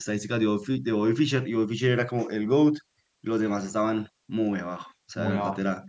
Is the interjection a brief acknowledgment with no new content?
No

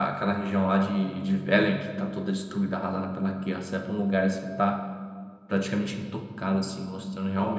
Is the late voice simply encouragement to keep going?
Yes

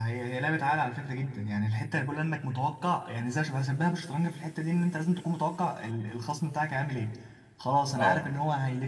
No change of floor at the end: Yes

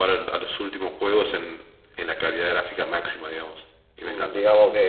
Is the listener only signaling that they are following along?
No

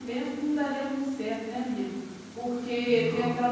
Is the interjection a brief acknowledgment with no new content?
Yes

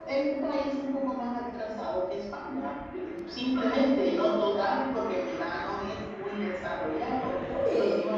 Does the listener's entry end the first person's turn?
No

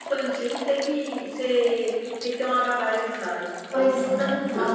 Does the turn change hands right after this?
Yes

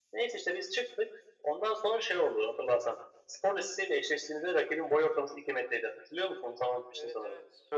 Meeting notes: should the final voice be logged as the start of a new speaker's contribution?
Yes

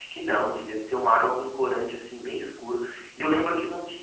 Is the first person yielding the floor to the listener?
No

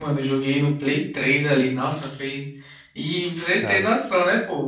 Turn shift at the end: No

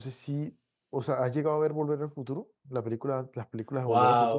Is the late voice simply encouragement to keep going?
No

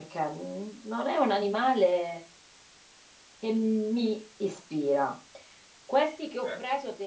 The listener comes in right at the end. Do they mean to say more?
No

